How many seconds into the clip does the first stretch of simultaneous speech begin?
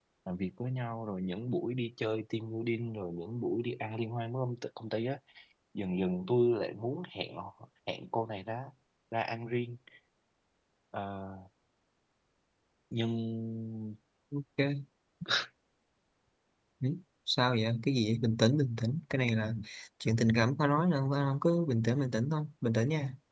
none

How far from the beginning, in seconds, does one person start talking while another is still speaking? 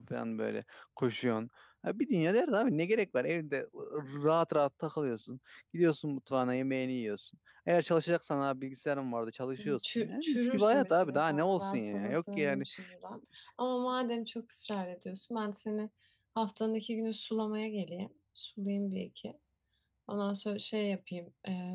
9.6 s

